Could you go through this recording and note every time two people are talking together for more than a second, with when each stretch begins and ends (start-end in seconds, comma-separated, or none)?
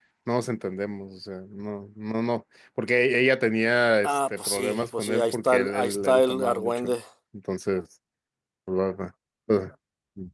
4.0-7.0